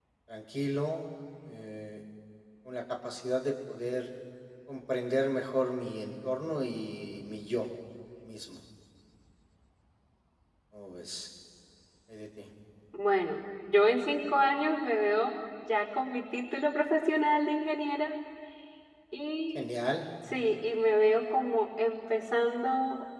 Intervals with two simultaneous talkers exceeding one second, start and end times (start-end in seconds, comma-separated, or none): none